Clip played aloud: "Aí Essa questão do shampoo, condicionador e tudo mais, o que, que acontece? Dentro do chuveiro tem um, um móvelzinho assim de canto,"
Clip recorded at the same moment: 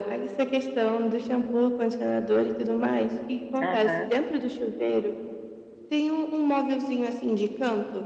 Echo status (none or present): present